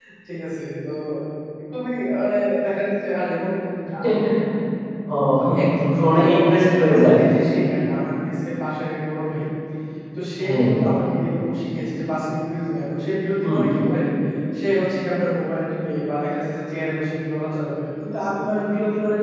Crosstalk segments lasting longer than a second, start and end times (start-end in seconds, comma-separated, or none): 5.8-7.2